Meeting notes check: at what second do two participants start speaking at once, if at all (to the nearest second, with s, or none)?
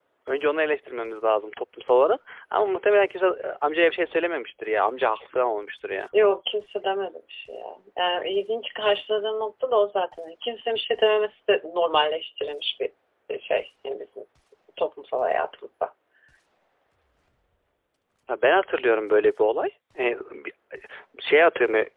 none